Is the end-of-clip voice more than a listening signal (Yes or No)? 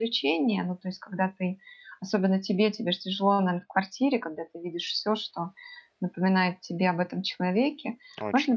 No